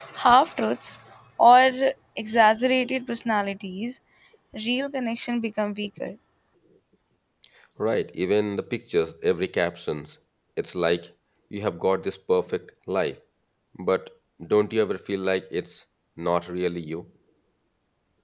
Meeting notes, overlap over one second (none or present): none